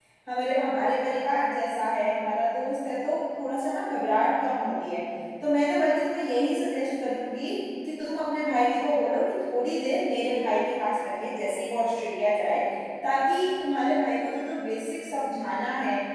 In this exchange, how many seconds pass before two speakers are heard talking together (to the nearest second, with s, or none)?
none